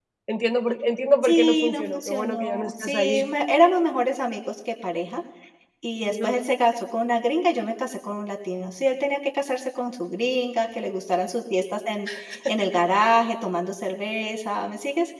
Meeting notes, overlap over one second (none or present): present